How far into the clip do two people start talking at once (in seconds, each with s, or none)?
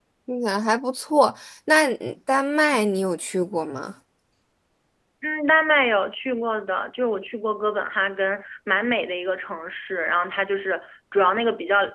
none